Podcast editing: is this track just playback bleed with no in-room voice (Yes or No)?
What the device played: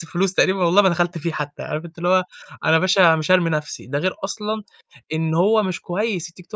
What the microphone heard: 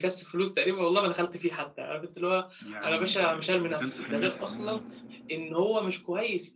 No